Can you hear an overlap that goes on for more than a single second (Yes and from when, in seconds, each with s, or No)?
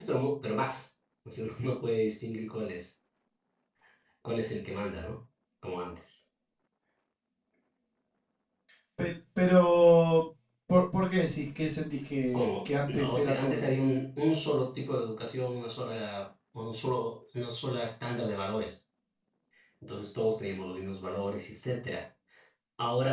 Yes, from 12.3 s